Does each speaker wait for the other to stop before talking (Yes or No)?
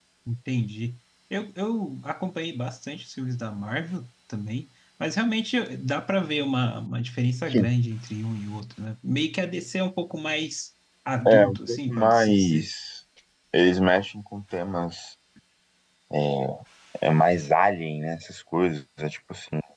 No